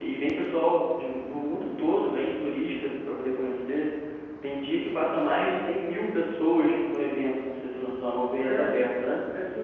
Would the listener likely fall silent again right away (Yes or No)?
No